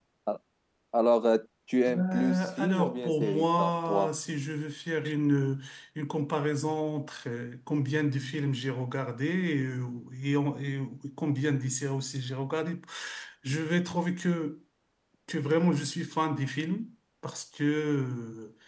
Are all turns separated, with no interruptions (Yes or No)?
No